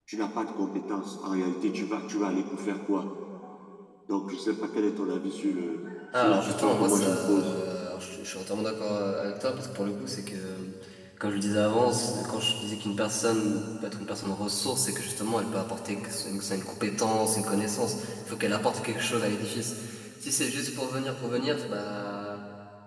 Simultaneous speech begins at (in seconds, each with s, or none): 6.1 s